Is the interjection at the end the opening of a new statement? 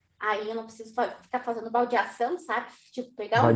No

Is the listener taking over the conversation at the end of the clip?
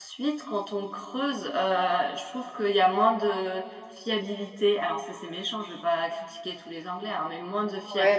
No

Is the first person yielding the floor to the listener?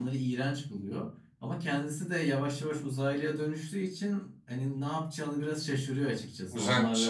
No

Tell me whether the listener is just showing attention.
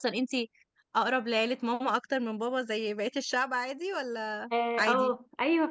No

